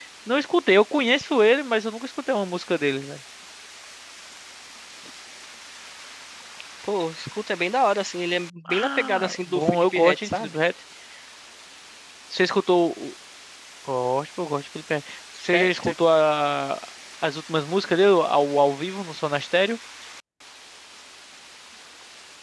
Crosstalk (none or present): present